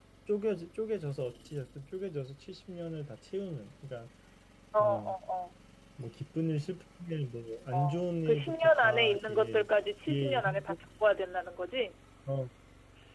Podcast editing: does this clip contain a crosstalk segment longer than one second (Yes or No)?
Yes